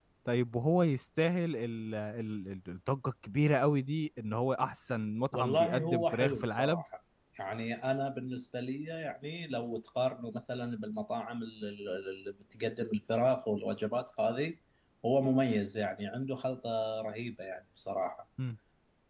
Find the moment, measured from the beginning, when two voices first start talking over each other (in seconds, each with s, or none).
5.3 s